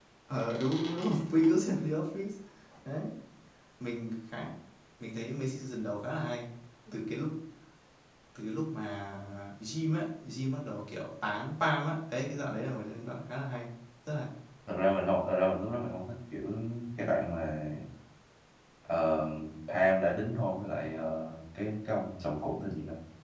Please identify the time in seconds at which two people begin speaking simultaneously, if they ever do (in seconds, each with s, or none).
none